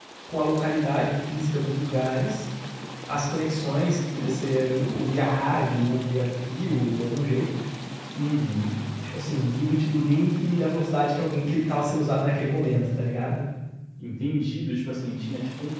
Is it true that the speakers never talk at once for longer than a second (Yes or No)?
Yes